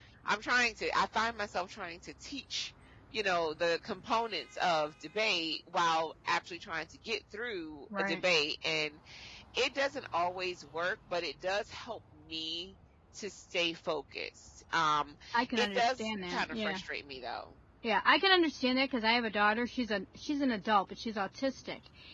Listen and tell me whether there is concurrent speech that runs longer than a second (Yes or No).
Yes